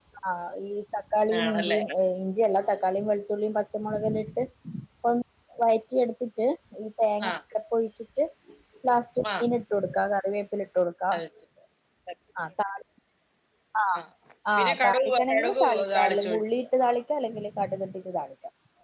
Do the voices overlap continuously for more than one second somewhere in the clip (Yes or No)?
Yes